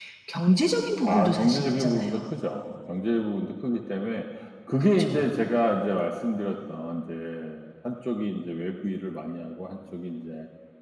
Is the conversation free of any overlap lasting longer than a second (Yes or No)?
No